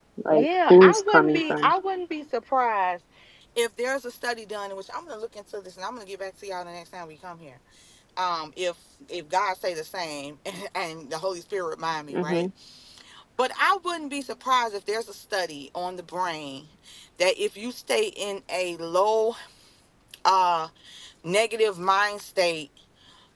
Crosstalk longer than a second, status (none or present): present